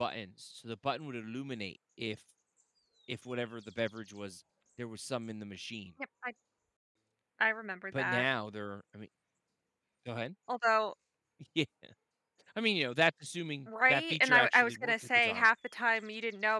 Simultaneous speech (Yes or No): Yes